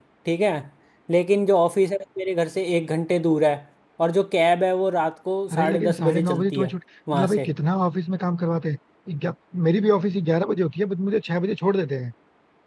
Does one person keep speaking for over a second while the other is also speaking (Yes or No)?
Yes